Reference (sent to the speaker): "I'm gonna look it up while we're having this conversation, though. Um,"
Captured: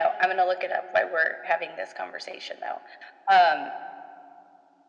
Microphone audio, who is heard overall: echo only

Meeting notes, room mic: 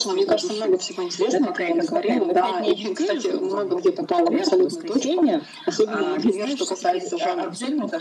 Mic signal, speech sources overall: echo only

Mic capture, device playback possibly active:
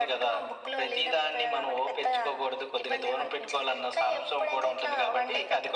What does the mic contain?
echo only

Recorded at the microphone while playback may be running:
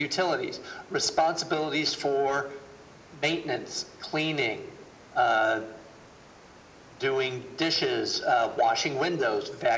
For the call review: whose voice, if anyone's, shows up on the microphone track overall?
echo only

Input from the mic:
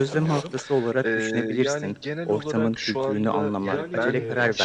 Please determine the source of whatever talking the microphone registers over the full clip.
both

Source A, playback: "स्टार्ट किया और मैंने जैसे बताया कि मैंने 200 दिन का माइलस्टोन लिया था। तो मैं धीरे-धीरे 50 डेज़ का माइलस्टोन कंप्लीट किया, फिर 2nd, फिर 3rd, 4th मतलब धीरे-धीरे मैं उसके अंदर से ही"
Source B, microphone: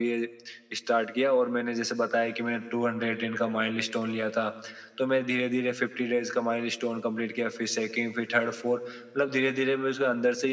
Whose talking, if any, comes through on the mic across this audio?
echo only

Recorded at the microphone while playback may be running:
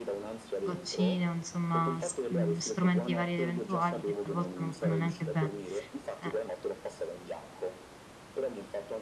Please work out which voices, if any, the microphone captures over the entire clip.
both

